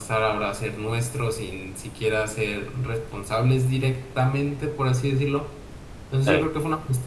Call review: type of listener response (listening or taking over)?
listening